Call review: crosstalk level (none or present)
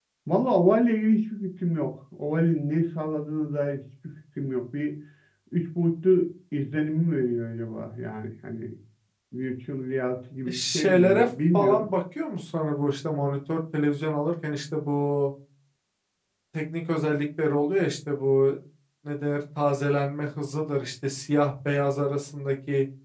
present